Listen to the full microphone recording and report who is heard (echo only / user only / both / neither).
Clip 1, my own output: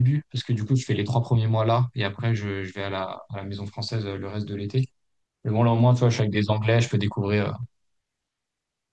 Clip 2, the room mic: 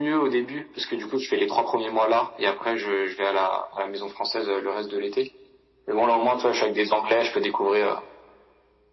echo only